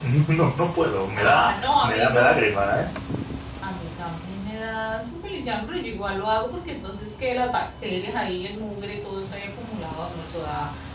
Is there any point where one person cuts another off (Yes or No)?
Yes